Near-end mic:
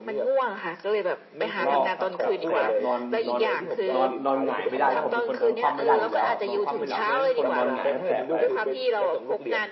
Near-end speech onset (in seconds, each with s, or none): 1.6 s